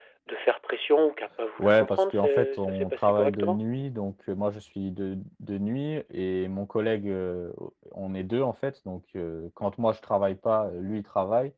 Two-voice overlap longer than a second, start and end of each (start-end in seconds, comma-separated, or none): 1.6-3.6